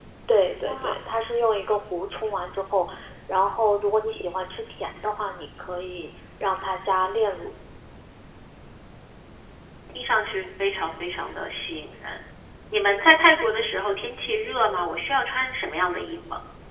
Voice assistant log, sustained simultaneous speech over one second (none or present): none